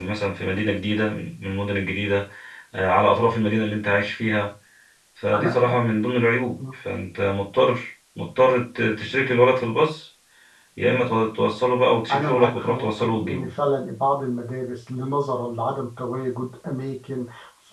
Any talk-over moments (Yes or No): Yes